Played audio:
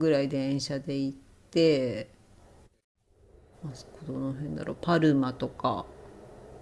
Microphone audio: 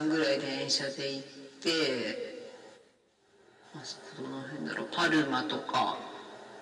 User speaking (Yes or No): No